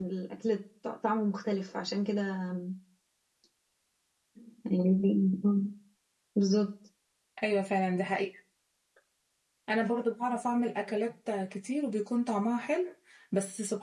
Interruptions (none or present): none